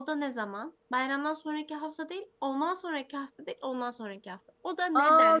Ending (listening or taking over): taking over